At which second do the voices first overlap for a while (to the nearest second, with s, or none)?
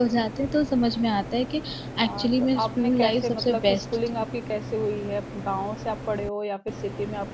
2 s